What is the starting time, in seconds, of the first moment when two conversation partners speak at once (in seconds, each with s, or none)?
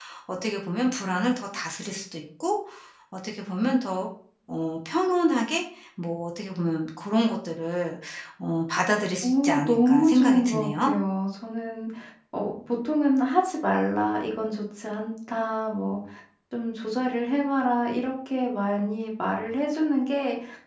9.2 s